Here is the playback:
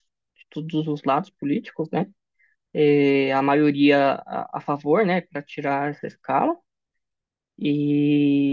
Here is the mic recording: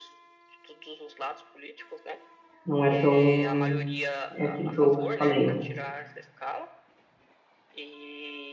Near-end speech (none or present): present